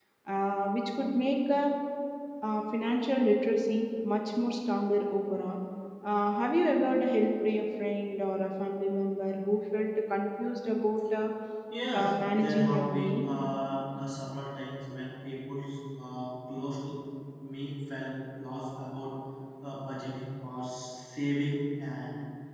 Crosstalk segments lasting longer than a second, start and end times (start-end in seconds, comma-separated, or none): 11.9-13.3